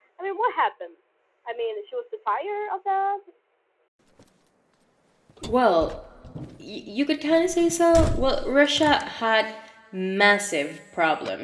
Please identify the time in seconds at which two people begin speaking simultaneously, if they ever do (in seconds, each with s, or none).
none